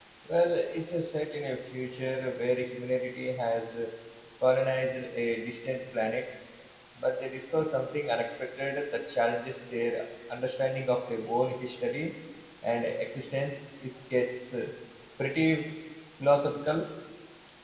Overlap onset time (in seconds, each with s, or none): none